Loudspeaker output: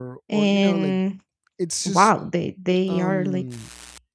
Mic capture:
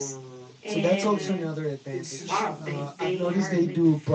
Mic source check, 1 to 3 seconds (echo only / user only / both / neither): both